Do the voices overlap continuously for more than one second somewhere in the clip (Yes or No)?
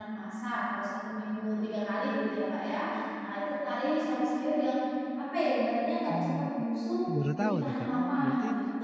Yes